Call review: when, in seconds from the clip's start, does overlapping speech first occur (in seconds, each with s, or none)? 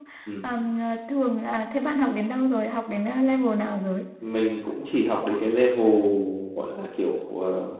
none